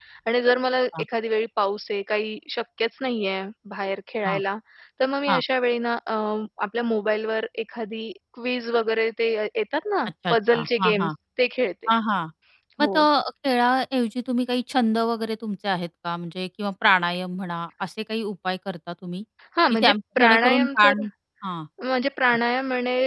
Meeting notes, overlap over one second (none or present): present